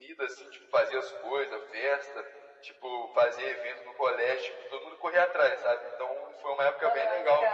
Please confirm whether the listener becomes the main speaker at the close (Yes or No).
No